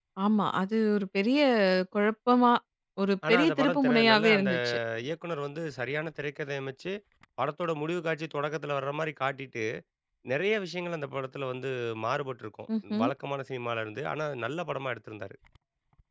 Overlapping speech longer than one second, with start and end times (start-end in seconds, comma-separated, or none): 3.3-4.5